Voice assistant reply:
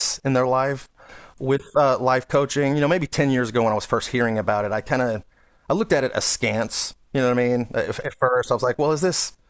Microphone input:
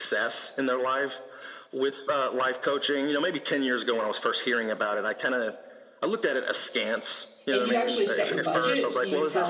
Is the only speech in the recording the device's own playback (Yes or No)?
No